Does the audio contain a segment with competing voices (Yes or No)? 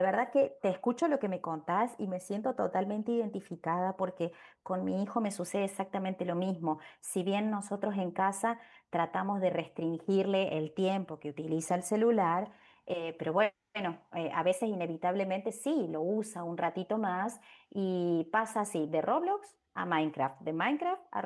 No